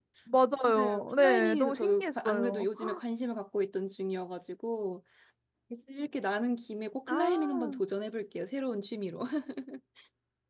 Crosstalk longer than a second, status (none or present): present